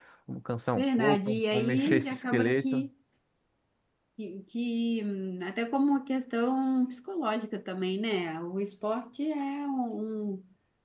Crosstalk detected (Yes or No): Yes